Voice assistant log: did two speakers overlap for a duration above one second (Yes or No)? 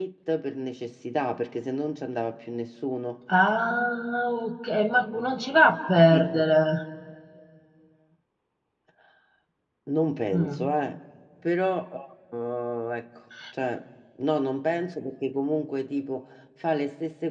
No